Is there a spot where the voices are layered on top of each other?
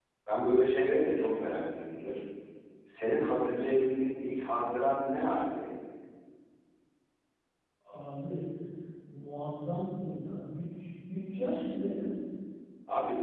No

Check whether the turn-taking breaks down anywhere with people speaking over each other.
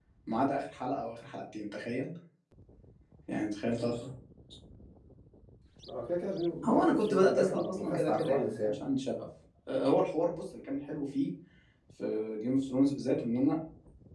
Yes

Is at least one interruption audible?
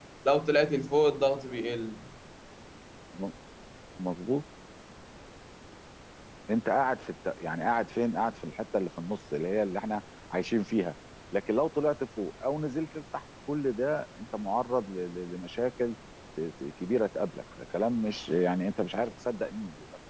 No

